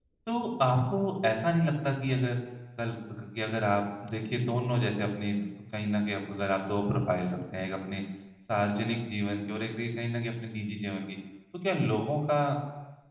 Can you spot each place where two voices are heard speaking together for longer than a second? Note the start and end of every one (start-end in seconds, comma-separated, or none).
none